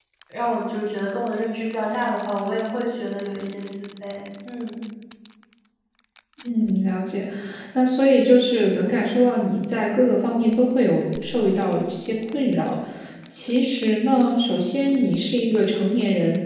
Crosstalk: none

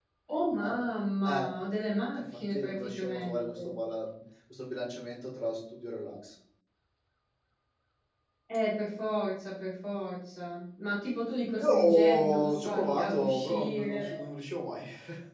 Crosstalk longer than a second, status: present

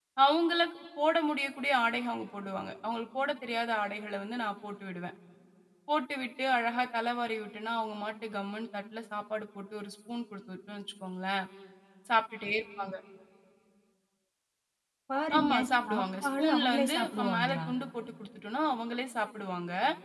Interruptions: present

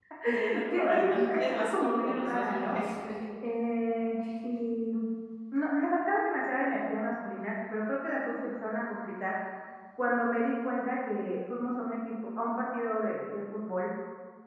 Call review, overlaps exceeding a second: present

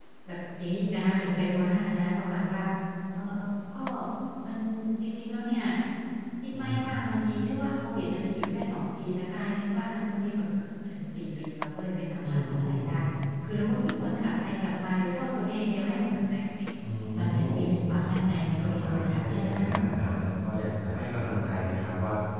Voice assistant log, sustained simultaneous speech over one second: present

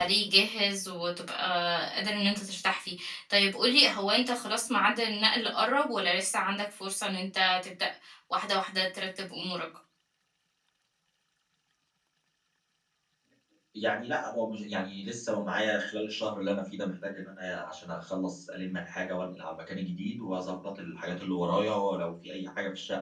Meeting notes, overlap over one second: none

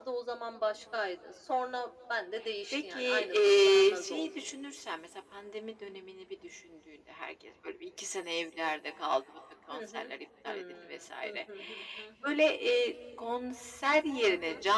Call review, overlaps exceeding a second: present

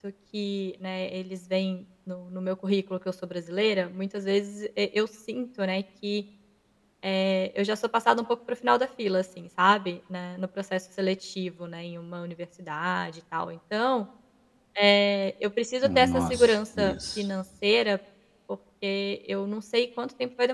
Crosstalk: present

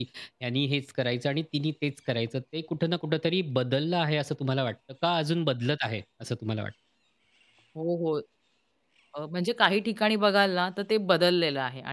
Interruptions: none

